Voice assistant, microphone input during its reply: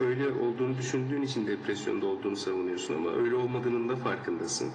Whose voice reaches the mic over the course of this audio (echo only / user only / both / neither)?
echo only